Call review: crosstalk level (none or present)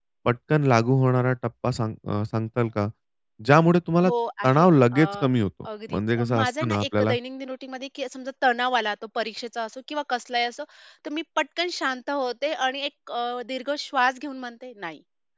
present